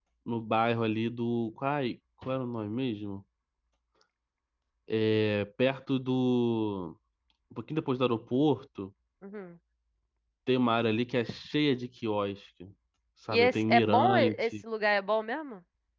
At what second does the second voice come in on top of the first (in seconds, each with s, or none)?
13.3 s